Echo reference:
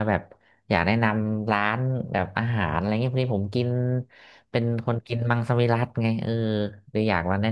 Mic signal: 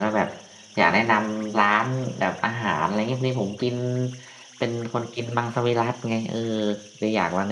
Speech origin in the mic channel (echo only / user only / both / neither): echo only